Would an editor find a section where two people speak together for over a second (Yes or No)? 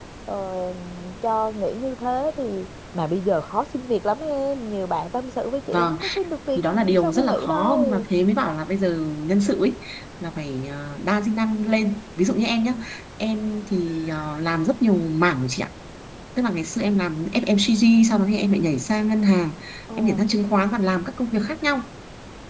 Yes